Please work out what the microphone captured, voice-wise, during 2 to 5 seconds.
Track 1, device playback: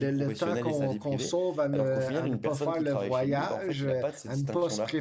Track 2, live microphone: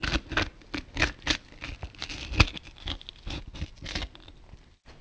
neither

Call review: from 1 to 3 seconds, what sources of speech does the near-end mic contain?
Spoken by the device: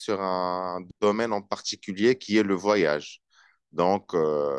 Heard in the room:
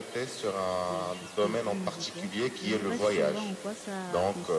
both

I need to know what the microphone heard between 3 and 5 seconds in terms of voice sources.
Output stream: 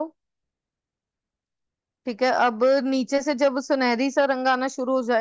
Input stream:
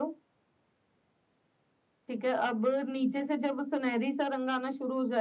echo only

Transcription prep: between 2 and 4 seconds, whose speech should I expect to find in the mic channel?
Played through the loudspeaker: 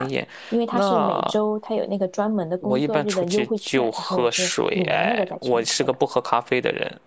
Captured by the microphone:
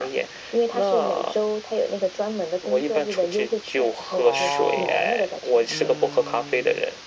echo only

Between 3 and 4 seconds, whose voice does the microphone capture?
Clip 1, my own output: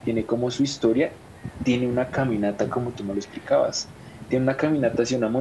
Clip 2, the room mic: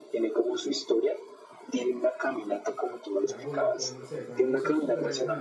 both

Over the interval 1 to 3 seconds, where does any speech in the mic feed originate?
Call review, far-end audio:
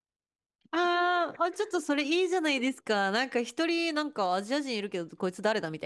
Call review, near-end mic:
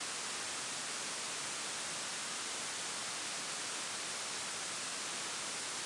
neither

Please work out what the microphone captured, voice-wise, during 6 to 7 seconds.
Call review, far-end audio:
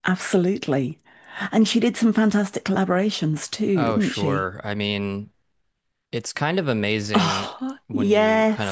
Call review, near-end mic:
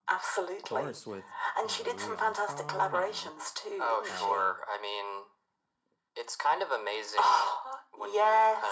echo only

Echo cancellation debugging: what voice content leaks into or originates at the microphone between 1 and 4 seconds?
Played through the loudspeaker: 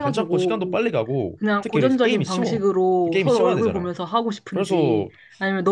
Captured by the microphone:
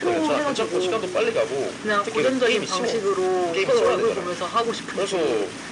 echo only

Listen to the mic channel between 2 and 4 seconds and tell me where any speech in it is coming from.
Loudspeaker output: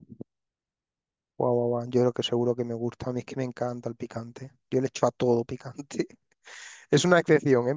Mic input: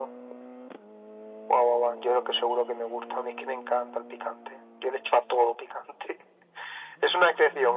echo only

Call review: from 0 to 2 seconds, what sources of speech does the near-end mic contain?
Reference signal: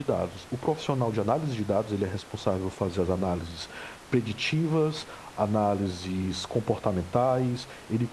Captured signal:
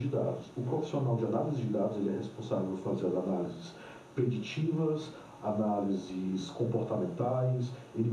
echo only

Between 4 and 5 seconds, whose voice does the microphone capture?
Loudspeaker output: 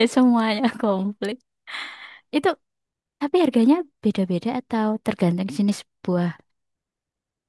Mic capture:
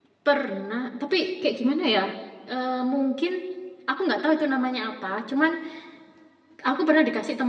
user only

